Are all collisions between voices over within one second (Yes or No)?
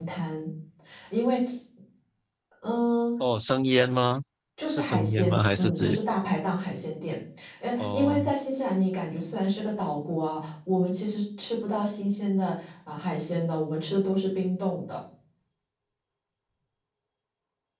No